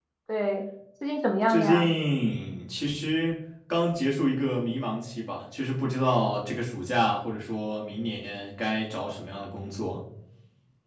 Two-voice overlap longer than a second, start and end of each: none

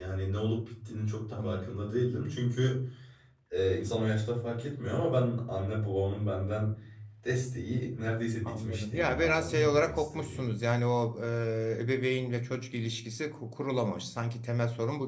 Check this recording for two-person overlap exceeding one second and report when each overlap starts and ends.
8.5-10.4

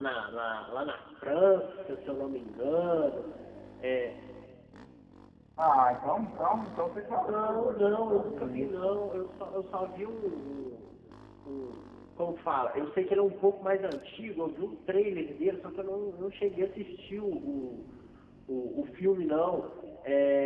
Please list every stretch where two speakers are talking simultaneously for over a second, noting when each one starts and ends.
7.1-9.0

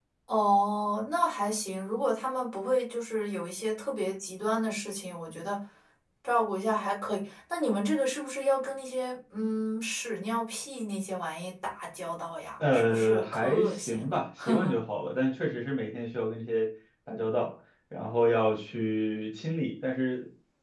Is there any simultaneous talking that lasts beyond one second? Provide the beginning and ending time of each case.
12.7-14.2

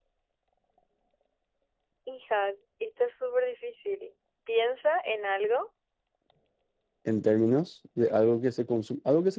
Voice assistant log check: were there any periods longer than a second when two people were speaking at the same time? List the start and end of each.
none

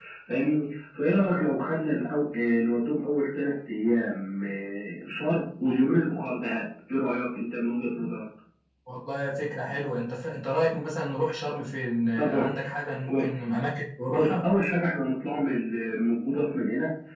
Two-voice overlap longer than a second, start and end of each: none

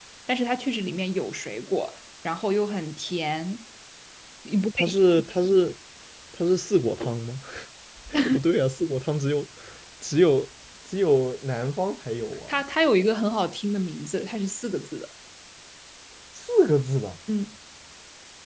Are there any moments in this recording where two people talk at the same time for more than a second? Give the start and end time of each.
none

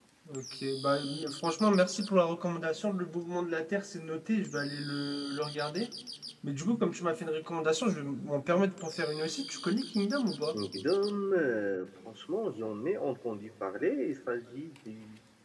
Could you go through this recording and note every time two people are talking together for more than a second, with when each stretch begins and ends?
none

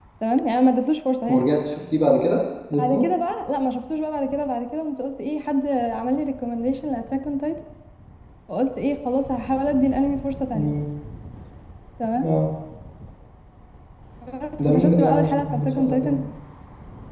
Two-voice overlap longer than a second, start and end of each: 14.6-16.2

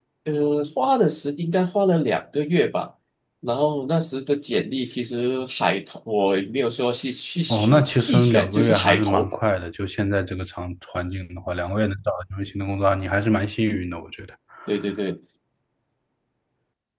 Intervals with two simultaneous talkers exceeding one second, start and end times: 7.5-9.3

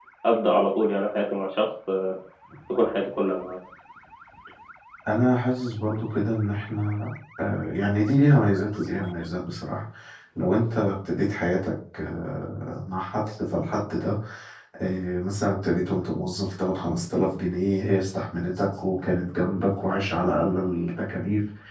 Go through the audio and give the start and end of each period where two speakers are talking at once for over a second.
none

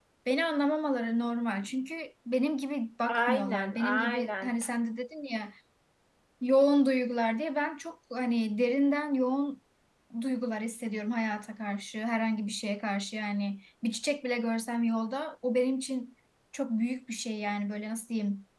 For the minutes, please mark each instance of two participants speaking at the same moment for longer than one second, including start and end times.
3.1-4.6

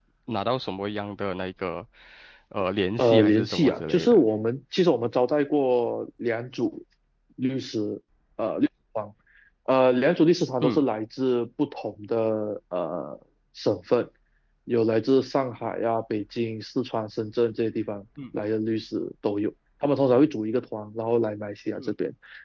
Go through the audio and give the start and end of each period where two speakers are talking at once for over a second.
3.0-4.2

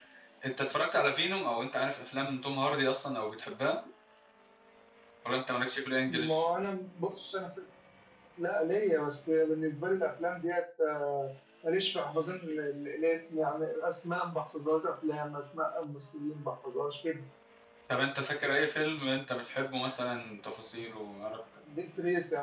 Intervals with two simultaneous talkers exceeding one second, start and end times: none

